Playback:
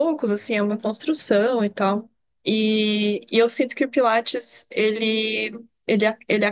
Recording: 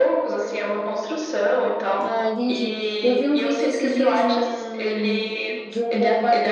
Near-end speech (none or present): present